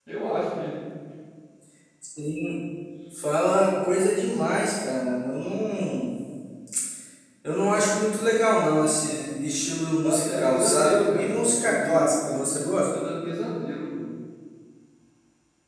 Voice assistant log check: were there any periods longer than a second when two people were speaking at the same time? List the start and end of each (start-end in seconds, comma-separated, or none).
10.0-12.9